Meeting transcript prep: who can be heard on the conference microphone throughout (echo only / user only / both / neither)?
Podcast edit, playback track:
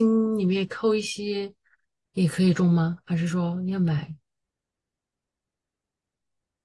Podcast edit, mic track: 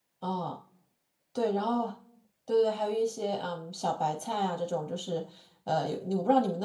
user only